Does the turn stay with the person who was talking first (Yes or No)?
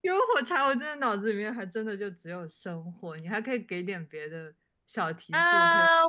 No